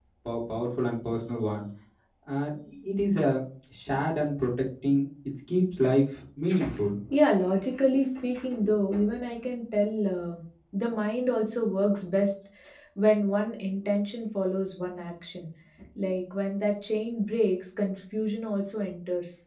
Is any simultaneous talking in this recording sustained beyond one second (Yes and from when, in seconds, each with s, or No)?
No